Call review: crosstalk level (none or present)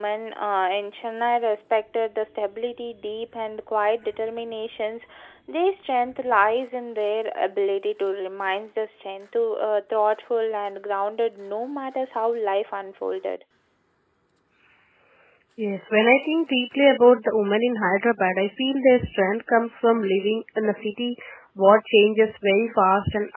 none